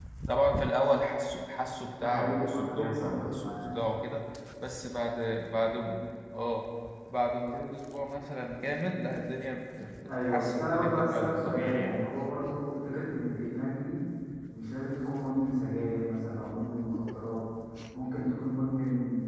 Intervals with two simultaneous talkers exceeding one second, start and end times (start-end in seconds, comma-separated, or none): 2.0-3.8, 10.2-12.0